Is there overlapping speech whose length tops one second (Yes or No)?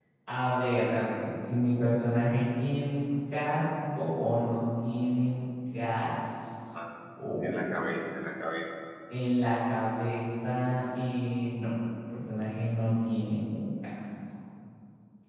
No